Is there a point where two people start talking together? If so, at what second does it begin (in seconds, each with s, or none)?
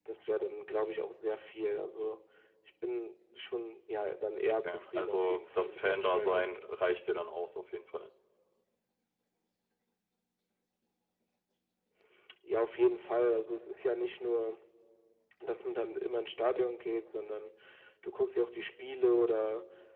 4.6 s